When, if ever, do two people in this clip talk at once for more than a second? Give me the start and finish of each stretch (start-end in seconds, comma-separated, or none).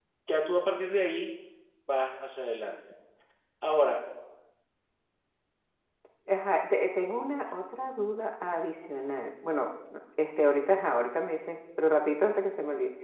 none